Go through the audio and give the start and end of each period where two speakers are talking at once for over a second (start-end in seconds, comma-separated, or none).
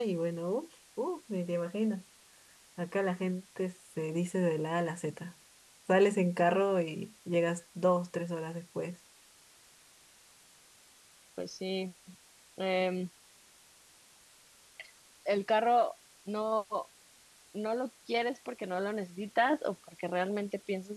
none